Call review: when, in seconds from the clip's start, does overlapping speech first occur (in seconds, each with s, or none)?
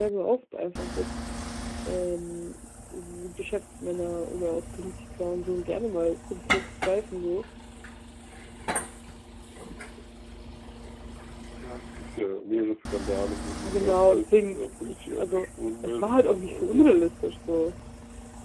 13.5 s